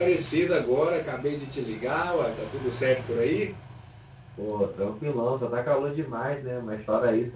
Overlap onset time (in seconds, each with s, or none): none